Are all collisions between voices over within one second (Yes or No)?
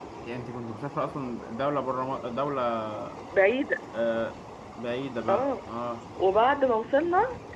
Yes